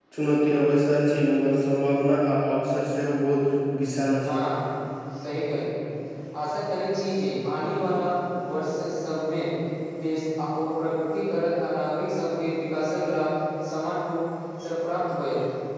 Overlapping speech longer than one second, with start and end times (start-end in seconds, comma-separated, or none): none